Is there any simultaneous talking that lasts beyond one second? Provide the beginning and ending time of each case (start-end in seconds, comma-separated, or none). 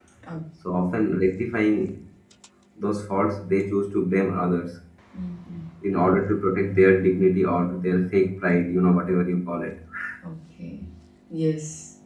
none